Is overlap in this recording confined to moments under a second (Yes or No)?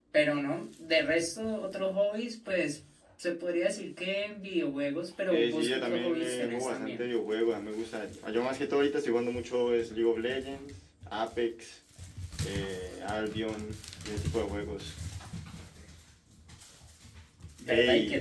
No